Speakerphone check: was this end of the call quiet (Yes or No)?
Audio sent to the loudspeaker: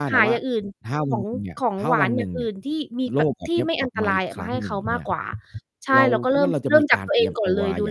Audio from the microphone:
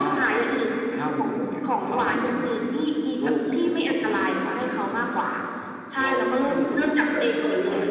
Yes